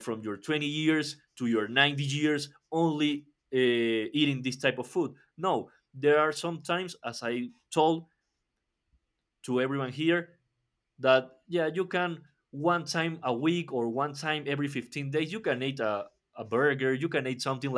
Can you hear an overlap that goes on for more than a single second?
No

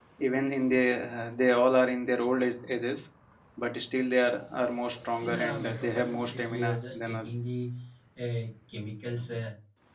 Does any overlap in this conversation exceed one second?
Yes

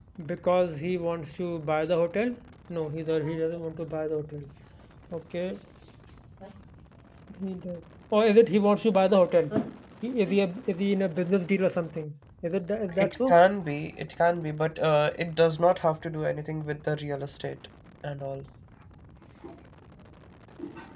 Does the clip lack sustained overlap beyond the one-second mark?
Yes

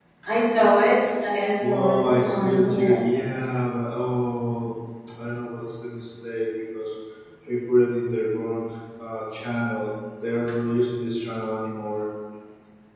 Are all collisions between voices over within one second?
No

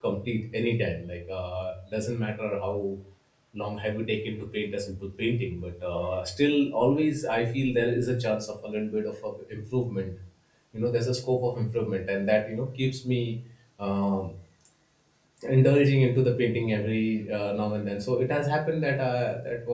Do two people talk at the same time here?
No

